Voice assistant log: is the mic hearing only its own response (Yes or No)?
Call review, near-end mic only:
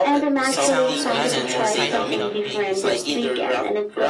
No